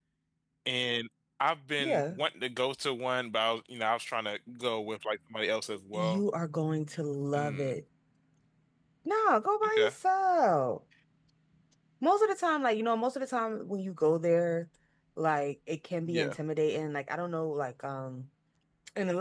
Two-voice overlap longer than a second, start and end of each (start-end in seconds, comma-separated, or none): none